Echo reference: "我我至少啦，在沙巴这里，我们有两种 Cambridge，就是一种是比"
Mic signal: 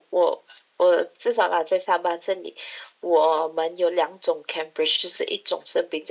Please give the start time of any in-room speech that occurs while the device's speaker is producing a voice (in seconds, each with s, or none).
none